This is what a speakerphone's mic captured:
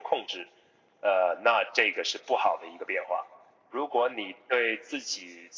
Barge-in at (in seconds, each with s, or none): none